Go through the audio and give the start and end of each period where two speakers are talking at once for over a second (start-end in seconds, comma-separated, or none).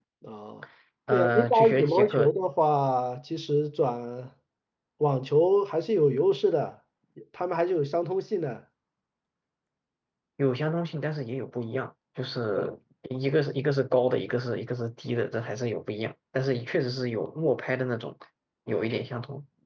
1.1-2.3